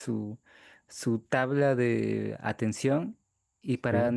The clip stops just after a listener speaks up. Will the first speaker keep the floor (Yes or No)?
Yes